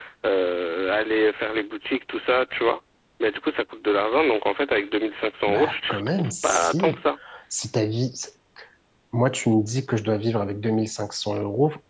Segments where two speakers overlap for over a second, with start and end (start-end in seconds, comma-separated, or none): 5.5-6.8